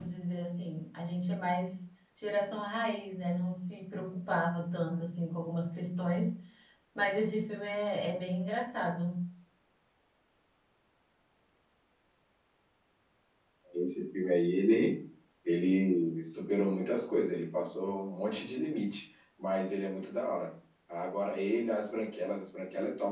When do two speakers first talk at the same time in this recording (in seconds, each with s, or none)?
none